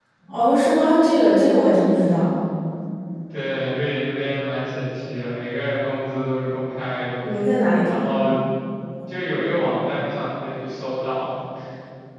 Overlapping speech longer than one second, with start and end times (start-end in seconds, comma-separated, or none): none